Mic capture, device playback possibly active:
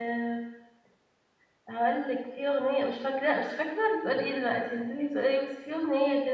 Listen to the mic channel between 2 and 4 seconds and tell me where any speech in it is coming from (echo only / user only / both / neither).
user only